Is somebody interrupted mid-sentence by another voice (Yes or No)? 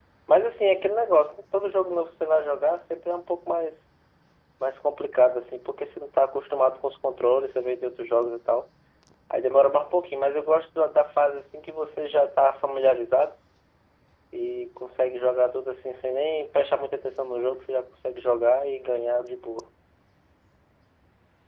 No